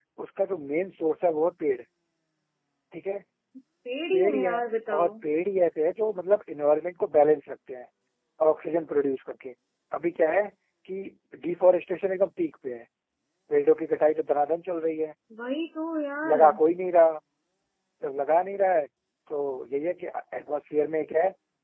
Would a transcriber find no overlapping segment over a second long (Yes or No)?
Yes